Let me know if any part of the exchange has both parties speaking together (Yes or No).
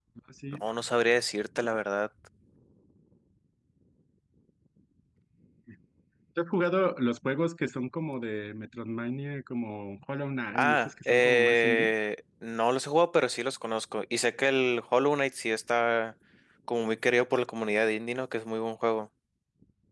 Yes